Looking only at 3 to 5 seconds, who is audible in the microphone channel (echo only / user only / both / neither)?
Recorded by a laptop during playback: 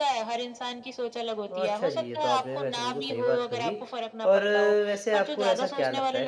both